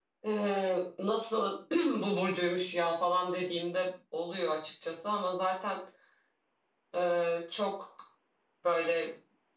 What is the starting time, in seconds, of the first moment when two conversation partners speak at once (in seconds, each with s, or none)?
none